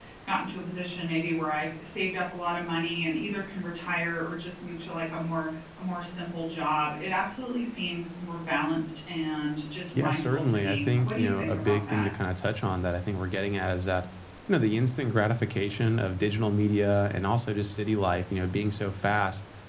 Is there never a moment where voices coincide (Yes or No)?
No